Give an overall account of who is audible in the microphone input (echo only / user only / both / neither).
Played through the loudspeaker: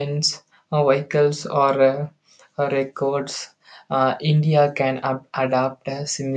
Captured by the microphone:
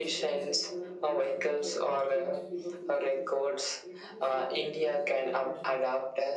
both